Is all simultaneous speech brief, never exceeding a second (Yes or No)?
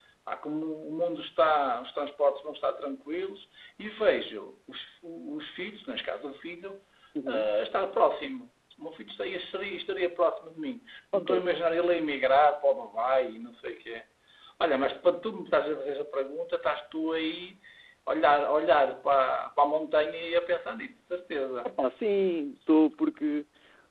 Yes